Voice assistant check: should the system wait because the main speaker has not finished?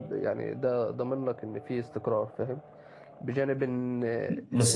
No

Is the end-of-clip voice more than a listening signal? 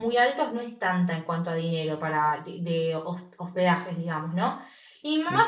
No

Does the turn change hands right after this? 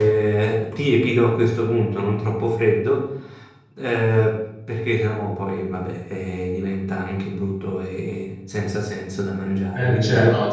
Yes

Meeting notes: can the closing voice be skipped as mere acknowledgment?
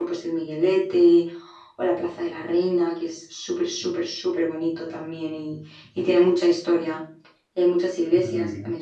Yes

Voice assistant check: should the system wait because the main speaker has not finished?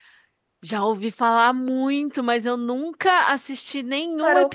No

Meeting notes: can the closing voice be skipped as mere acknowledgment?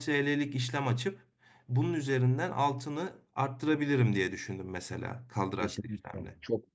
No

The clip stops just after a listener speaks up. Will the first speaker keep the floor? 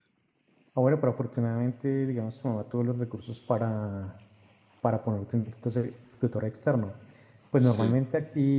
Yes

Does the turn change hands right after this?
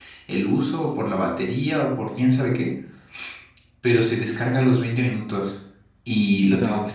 No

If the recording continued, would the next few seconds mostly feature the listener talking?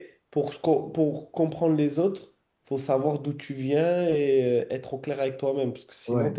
Yes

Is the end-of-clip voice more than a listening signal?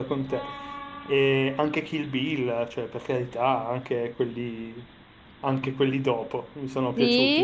Yes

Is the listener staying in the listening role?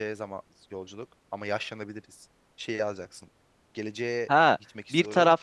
No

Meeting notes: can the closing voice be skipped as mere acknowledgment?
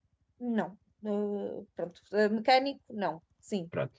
No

